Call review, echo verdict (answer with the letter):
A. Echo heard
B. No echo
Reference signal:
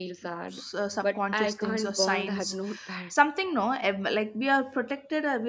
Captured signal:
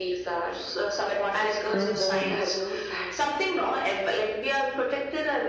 A